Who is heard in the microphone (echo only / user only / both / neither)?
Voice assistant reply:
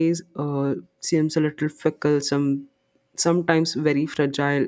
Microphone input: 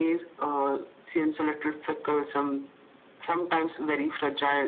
echo only